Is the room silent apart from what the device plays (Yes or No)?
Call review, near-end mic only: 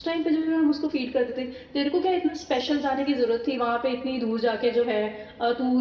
No